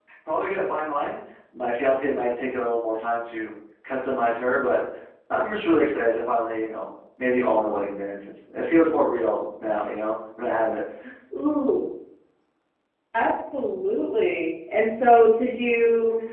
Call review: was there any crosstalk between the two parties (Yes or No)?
No